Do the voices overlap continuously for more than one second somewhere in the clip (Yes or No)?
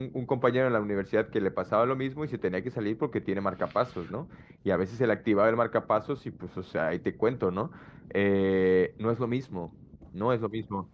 No